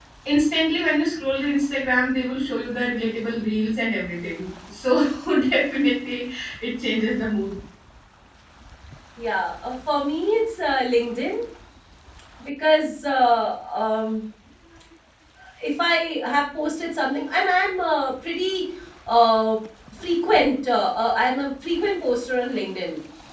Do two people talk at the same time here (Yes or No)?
No